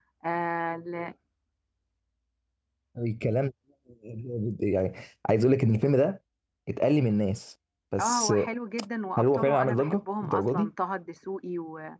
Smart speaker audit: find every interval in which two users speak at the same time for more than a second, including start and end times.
9.2-10.7

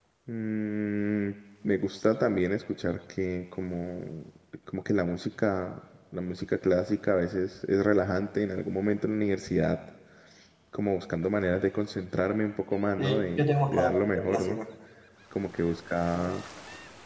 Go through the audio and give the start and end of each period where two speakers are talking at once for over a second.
13.0-14.6

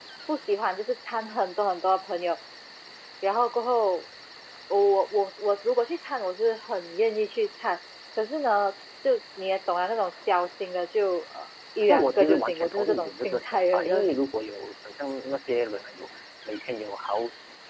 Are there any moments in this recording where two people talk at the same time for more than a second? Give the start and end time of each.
11.9-14.1

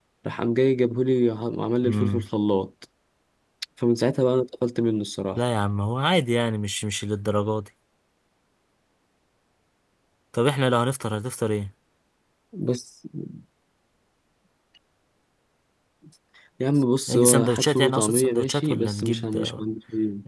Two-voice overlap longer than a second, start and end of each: 17.1-19.6

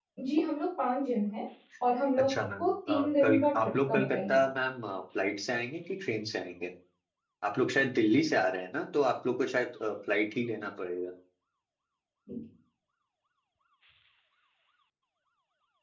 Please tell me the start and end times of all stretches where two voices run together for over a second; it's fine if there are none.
2.2-4.4

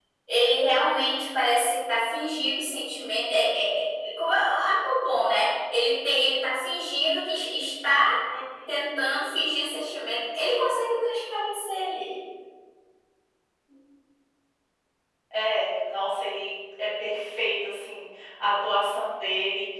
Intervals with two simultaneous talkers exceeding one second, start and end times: none

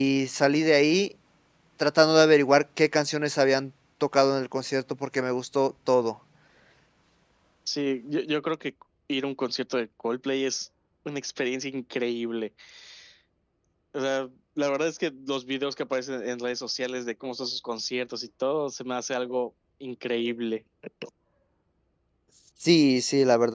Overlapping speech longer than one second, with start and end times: none

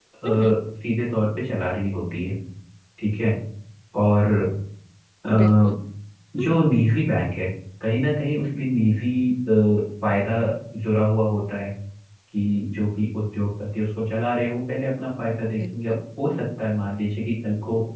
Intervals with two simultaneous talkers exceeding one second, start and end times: none

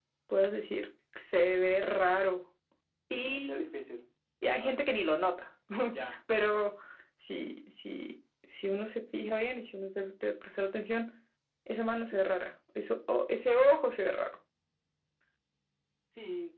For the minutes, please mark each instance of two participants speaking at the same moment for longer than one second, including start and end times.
none

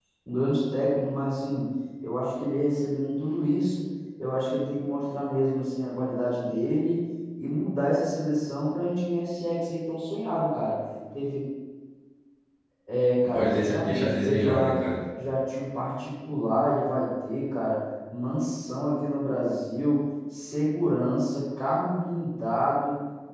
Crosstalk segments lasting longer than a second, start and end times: 13.2-14.7

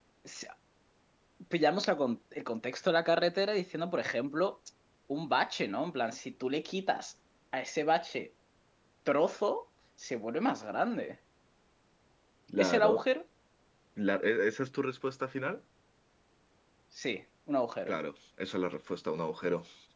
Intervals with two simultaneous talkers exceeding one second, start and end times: none

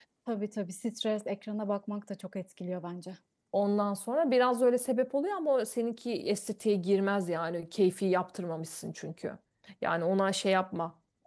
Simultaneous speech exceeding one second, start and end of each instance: none

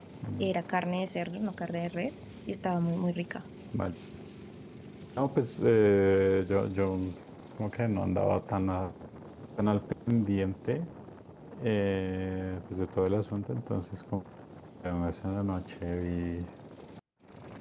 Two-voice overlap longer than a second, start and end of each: none

